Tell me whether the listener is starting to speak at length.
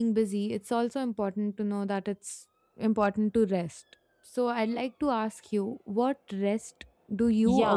Yes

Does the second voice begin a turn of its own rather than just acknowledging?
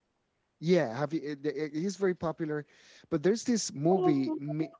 Yes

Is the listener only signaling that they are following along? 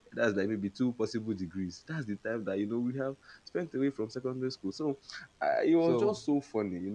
Yes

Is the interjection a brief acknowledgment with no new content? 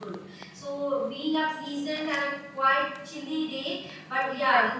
No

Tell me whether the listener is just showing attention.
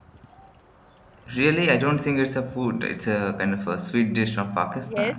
No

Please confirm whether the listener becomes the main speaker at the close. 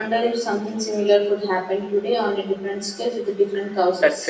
Yes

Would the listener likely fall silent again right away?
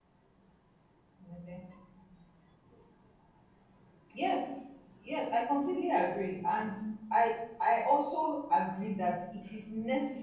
Yes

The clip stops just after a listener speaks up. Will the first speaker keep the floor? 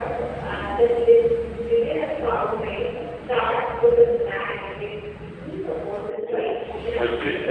No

